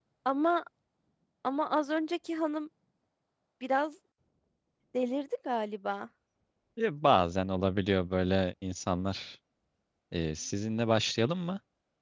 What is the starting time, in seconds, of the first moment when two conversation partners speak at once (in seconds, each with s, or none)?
none